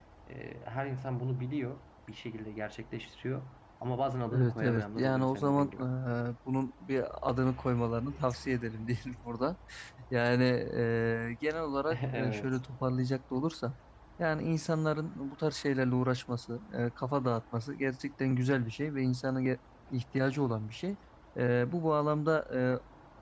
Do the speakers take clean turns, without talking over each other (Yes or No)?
No